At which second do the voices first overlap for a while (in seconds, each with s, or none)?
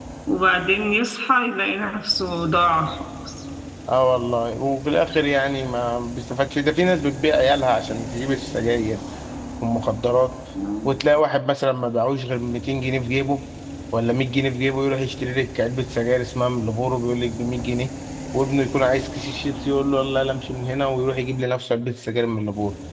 none